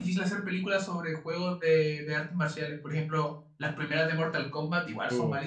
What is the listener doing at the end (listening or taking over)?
taking over